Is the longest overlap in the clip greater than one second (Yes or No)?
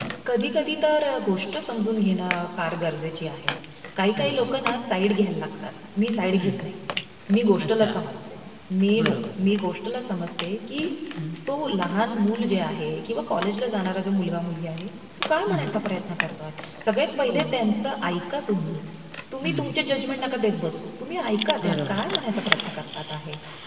No